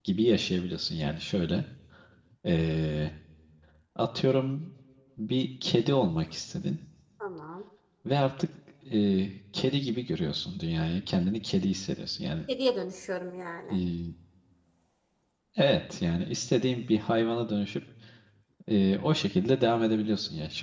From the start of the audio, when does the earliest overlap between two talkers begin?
none

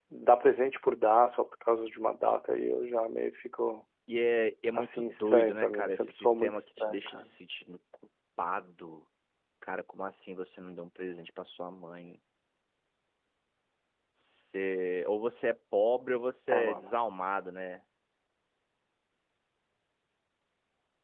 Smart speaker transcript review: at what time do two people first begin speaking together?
4.8 s

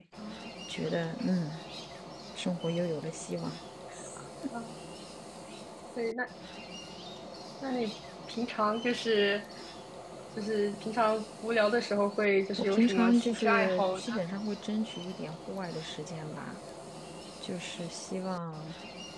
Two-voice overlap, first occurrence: 12.6 s

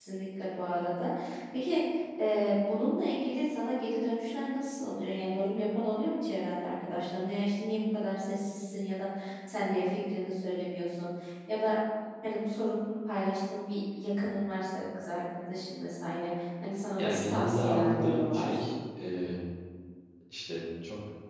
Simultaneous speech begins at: 16.9 s

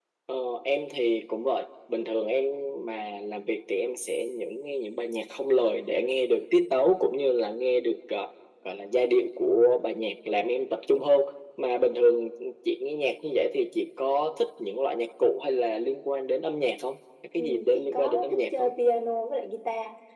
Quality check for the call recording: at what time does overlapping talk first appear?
17.4 s

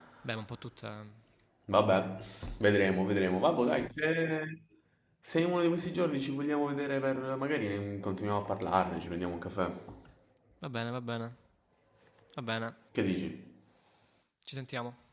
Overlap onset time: none

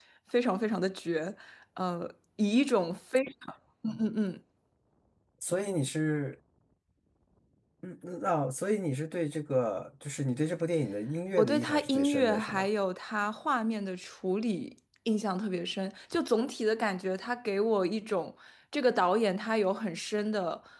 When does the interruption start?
11.4 s

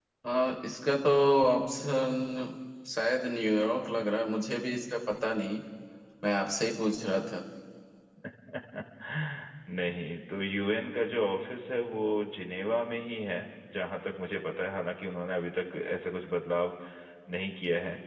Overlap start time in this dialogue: none

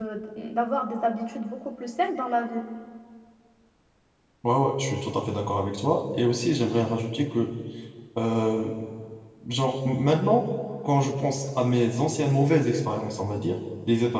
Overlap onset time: none

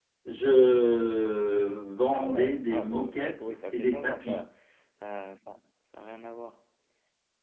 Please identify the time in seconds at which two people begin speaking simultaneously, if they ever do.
2.1 s

